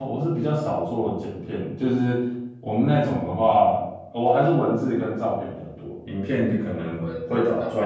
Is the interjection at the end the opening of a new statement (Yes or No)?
Yes